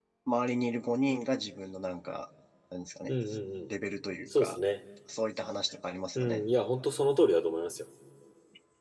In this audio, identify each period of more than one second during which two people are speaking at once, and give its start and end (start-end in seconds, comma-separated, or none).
none